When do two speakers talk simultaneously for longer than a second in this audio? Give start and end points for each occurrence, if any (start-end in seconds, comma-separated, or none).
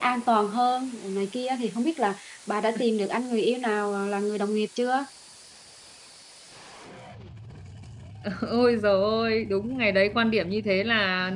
none